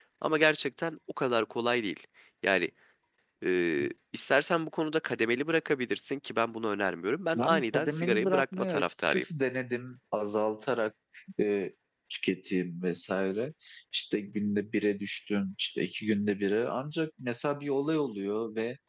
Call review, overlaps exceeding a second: present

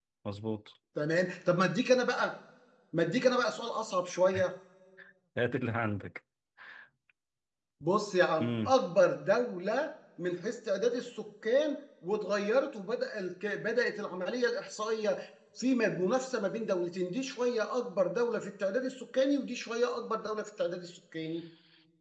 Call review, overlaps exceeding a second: none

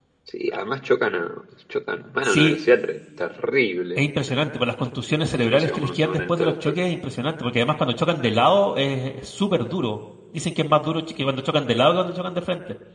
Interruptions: present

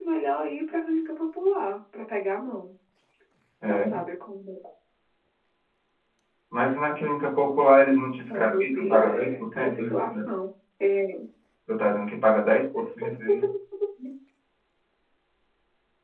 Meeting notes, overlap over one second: present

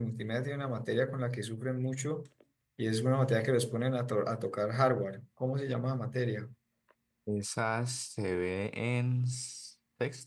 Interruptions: none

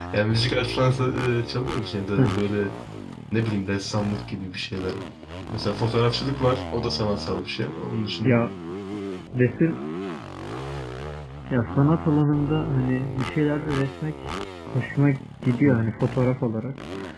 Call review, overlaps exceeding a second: none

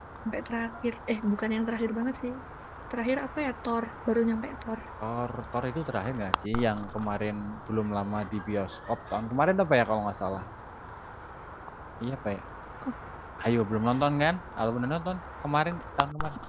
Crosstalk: none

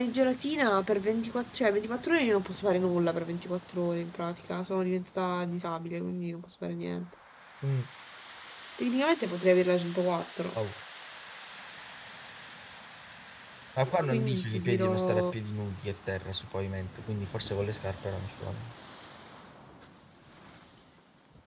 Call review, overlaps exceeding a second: present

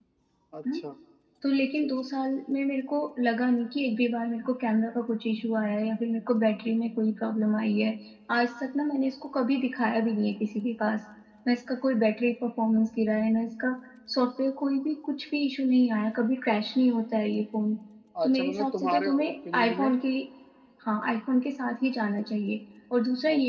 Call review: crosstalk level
present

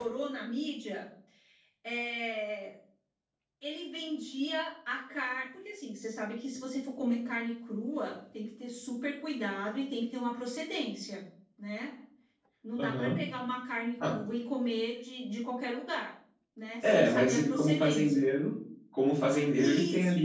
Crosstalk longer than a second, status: present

